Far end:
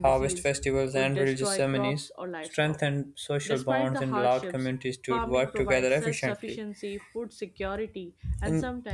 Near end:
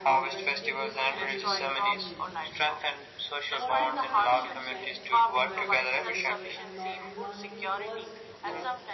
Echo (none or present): present